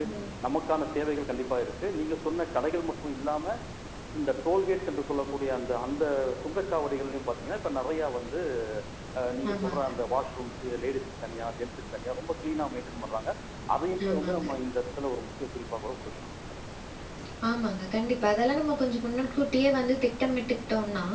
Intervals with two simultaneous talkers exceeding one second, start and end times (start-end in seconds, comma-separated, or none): none